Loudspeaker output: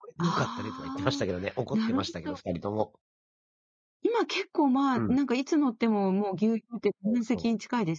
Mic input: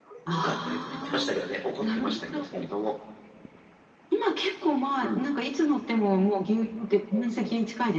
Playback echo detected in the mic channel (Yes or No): Yes